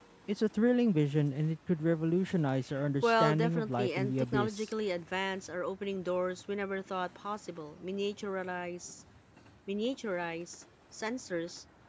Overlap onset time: 3.0 s

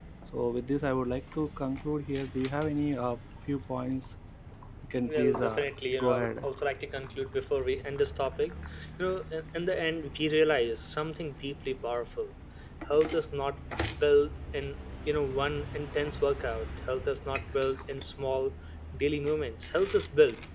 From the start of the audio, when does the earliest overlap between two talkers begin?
5.1 s

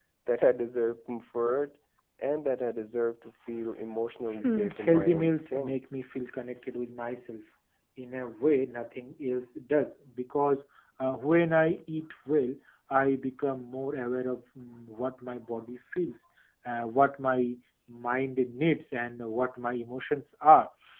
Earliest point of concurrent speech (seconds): 4.4 s

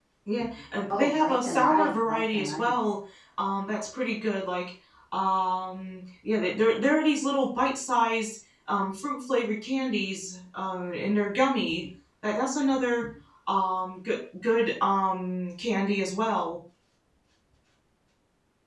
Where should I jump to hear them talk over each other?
0.9 s

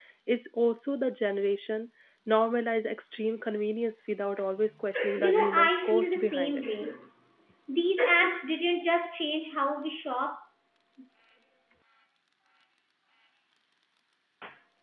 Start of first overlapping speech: 5.2 s

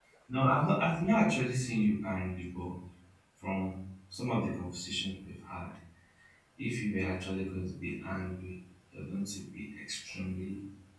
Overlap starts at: none

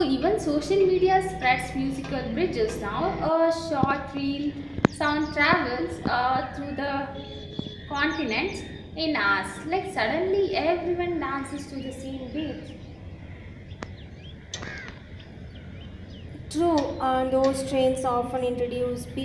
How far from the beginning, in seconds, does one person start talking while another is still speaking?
none

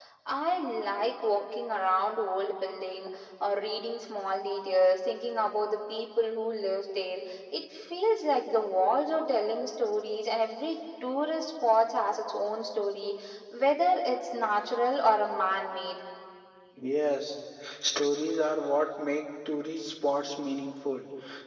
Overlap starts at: none

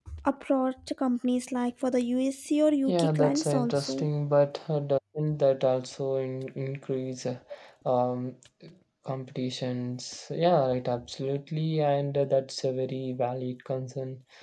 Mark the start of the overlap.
2.9 s

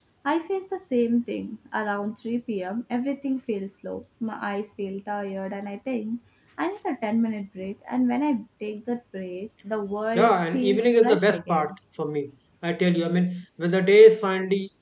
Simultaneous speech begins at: 10.2 s

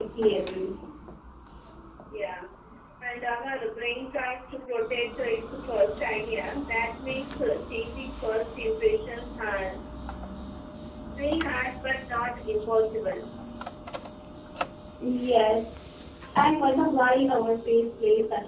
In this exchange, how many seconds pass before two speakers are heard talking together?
none

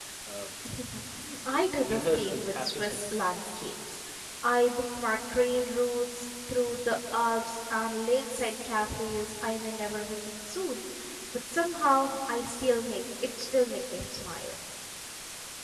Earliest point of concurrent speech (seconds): 1.5 s

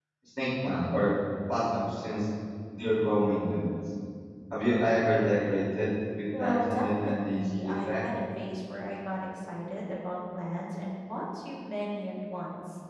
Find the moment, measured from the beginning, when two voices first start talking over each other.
6.3 s

